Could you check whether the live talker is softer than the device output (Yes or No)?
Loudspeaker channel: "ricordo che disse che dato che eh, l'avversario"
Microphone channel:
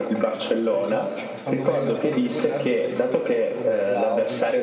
Yes